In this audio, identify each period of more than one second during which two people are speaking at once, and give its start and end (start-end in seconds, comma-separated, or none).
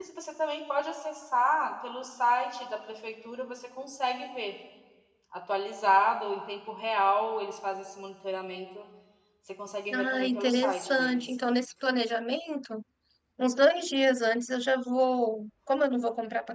9.9-11.2